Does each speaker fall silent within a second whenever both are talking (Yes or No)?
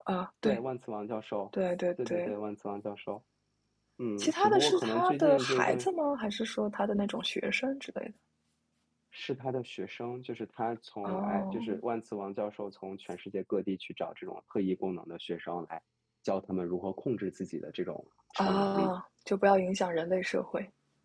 No